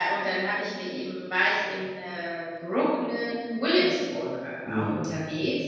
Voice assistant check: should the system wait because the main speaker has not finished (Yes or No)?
Yes